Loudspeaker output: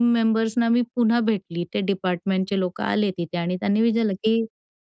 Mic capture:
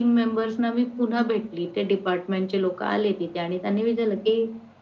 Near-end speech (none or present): none